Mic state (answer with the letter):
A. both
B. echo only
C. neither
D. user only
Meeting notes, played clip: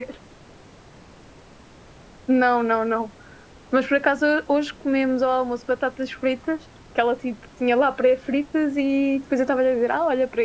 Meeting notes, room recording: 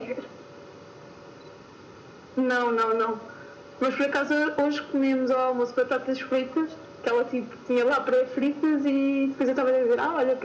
B